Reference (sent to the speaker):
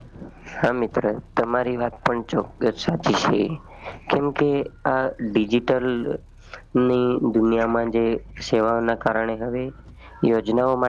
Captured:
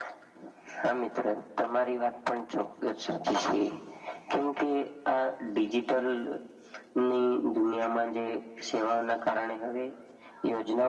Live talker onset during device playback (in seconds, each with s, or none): none